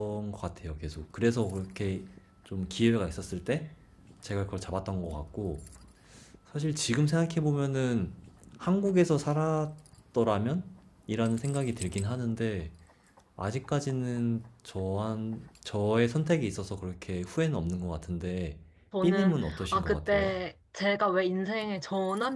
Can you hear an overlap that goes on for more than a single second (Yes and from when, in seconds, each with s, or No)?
Yes, from 19.0 s